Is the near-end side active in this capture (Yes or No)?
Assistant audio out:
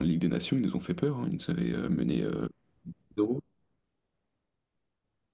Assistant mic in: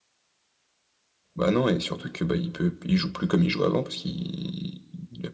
Yes